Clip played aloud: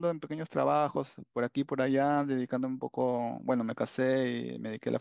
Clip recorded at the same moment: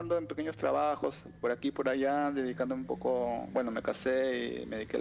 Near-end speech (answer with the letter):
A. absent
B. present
A